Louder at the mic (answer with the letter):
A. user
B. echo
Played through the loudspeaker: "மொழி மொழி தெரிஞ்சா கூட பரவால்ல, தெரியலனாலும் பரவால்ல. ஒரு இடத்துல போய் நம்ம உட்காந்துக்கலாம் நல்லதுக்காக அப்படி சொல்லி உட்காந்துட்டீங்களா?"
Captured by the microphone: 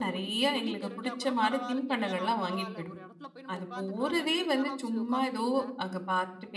A